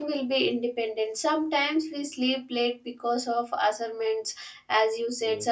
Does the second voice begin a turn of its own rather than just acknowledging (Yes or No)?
No